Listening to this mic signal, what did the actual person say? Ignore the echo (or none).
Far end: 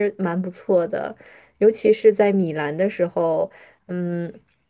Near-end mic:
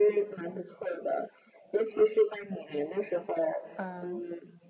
嗯